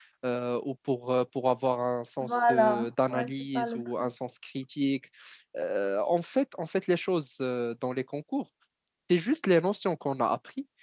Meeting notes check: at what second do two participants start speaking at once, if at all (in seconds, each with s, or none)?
2.2 s